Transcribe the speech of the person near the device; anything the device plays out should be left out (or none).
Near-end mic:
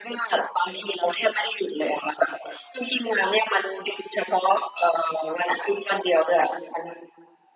none